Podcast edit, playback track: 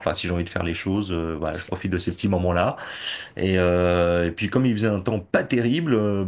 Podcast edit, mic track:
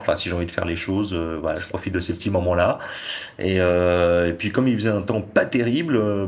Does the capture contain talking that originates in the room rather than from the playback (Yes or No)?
No